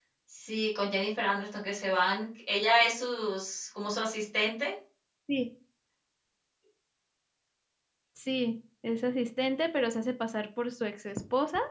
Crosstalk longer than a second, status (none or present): none